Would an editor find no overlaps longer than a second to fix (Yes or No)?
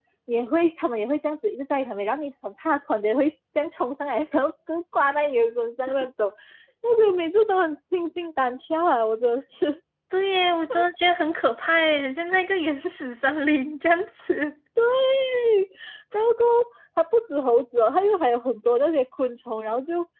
Yes